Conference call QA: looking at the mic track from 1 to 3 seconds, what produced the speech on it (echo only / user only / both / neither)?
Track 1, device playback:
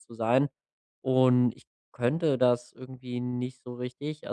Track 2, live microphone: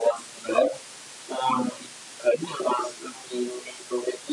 echo only